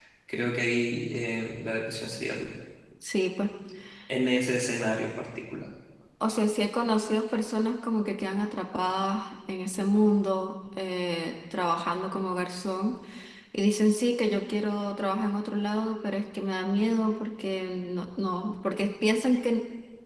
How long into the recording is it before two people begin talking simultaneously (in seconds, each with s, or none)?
none